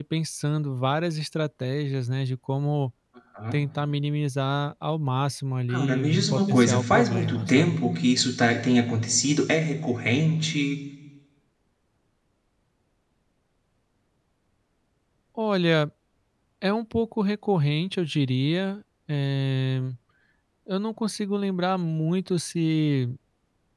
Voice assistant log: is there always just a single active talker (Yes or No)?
No